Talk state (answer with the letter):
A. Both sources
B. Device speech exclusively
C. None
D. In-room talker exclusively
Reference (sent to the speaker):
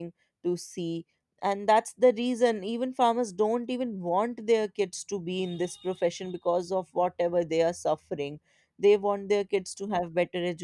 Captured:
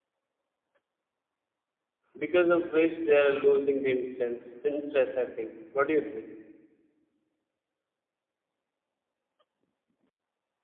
D